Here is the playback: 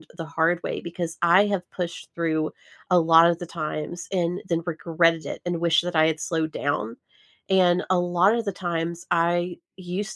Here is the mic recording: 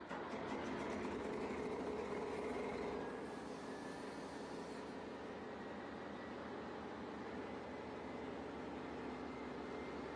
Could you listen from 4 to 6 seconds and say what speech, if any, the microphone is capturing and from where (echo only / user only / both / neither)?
neither